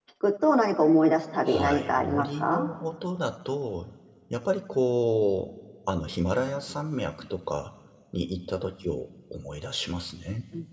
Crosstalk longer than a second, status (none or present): present